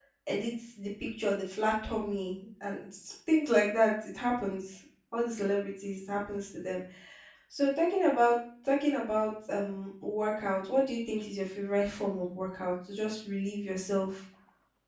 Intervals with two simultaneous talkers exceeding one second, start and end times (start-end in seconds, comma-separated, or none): none